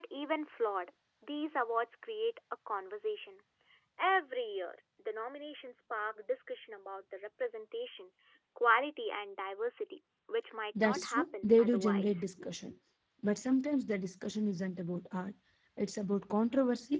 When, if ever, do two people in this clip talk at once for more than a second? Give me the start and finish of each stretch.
10.8-12.2

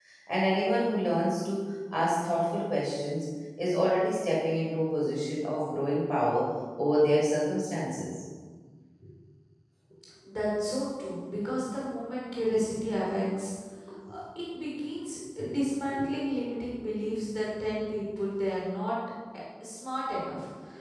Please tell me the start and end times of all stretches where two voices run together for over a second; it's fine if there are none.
none

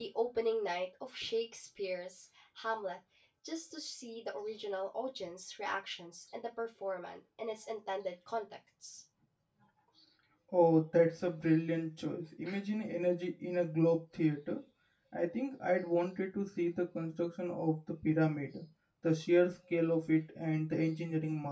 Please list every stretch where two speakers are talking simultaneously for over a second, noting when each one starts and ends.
none

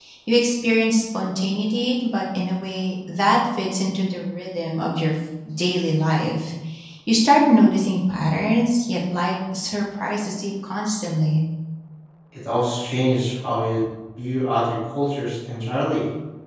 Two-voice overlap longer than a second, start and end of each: none

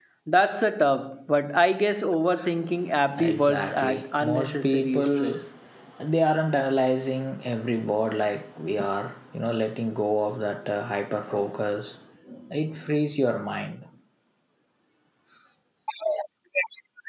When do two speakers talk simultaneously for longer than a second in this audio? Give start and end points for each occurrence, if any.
3.2-5.4

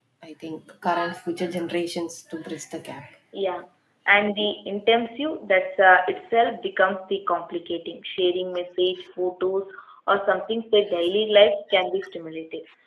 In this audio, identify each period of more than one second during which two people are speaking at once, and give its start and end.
none

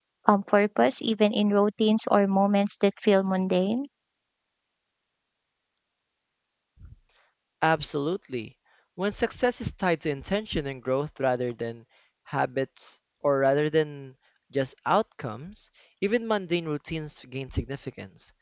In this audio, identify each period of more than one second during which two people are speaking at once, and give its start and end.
none

